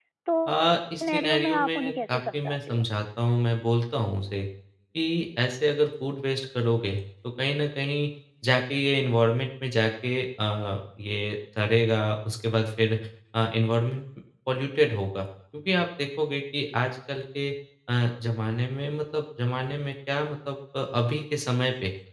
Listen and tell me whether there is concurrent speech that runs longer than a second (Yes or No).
Yes